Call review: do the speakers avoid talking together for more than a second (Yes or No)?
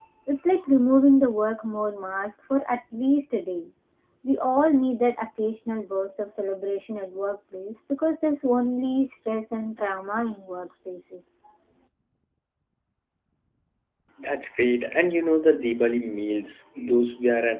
Yes